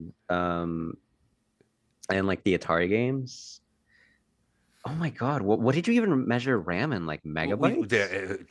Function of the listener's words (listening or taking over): taking over